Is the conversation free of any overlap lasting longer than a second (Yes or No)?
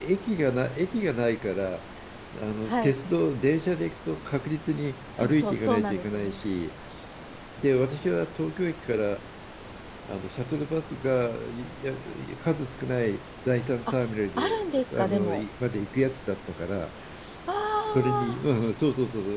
No